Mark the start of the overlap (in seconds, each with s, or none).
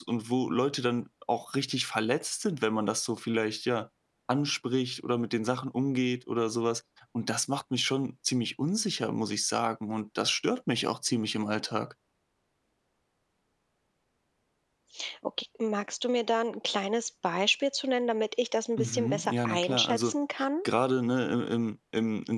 18.8 s